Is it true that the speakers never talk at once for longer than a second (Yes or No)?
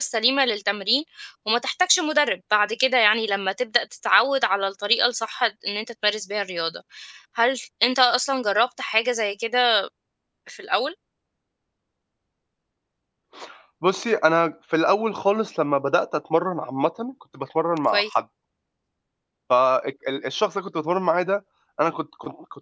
Yes